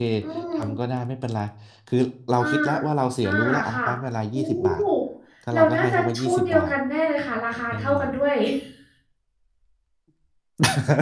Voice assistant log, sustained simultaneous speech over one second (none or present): present